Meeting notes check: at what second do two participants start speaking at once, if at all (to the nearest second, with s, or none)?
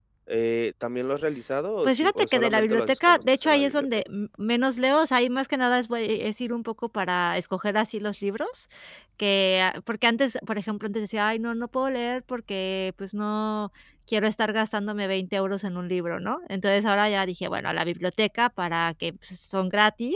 2 s